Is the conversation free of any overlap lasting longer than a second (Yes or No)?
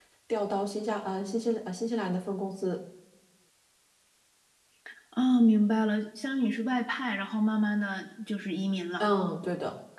Yes